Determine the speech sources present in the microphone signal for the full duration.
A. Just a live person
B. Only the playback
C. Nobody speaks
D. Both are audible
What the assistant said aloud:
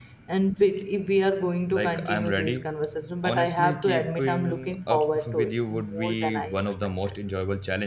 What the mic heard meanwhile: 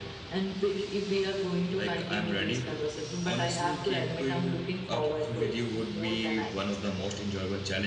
B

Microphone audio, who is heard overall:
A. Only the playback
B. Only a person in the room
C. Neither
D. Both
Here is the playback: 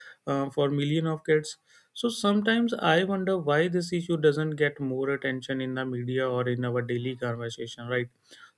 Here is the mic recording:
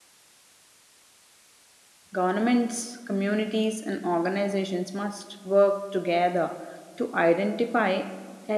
B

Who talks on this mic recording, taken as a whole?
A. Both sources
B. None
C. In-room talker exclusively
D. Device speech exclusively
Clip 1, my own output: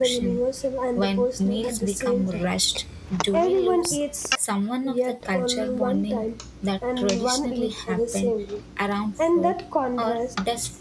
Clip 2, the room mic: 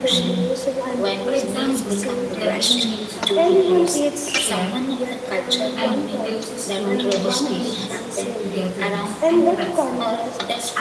A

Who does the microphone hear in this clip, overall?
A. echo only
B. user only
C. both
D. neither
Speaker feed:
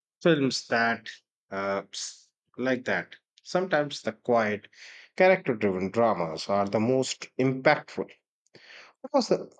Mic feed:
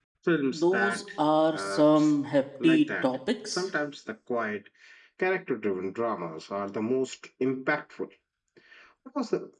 C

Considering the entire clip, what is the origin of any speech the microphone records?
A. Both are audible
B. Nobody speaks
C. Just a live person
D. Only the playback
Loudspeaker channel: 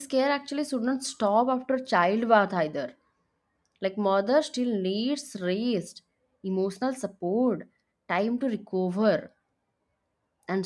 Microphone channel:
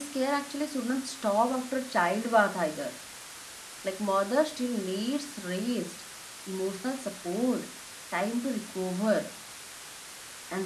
D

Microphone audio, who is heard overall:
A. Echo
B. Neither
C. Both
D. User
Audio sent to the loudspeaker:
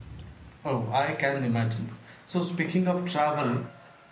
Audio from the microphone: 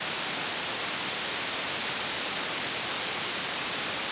B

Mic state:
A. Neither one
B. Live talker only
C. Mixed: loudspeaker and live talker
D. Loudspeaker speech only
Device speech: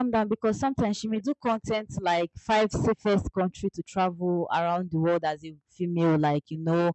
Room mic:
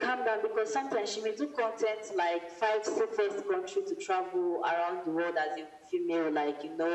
D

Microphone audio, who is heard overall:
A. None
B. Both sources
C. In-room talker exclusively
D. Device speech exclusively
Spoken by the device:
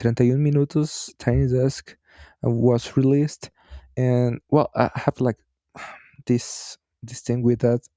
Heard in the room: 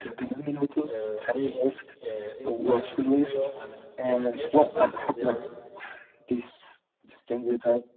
B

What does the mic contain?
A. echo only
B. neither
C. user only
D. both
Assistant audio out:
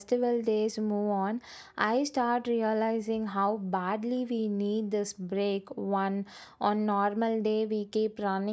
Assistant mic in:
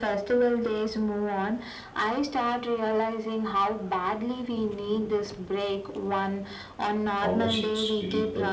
D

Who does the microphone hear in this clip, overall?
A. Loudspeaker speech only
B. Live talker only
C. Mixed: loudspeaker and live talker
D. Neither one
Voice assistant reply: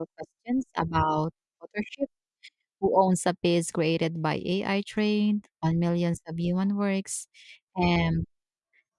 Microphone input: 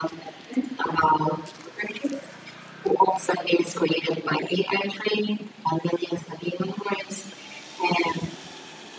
A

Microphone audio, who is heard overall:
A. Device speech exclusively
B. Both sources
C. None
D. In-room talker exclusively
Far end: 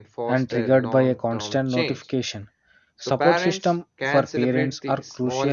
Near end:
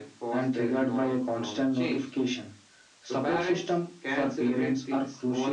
A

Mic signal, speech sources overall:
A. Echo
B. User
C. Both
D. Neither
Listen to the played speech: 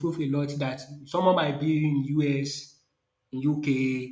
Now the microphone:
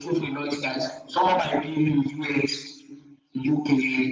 A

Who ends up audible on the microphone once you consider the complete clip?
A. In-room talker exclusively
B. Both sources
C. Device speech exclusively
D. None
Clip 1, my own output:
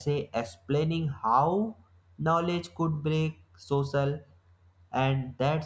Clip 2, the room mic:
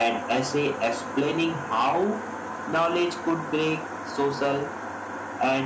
C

